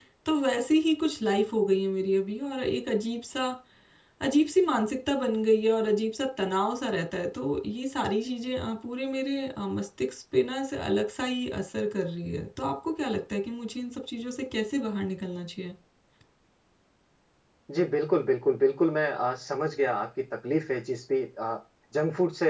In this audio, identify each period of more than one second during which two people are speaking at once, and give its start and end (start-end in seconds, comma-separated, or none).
none